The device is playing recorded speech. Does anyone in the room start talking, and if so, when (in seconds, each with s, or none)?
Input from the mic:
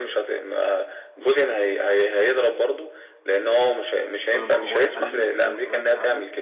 4.3 s